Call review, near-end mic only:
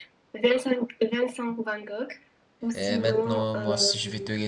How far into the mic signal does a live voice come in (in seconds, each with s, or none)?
2.7 s